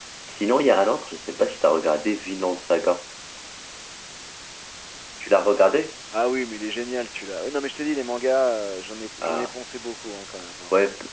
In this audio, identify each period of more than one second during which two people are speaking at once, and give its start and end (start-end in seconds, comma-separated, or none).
none